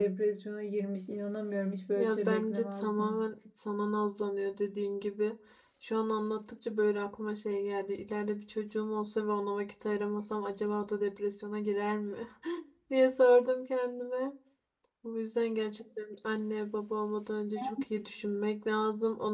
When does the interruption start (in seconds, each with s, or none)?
1.9 s